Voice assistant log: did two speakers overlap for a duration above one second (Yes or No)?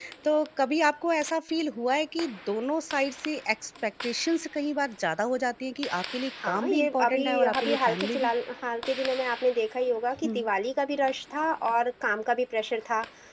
Yes